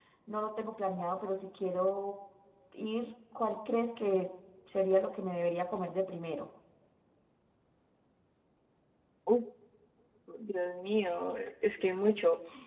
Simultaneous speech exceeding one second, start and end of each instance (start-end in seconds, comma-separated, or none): none